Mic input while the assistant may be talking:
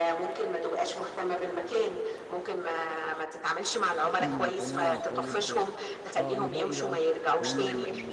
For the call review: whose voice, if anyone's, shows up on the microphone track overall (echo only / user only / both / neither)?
both